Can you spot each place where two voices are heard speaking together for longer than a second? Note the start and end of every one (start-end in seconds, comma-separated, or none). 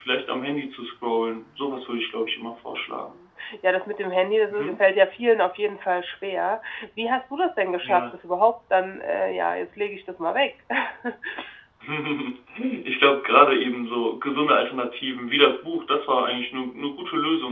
none